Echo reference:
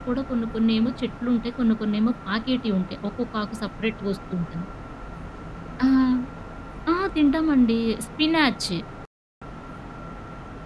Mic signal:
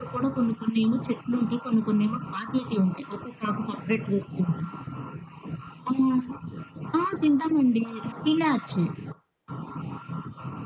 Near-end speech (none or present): none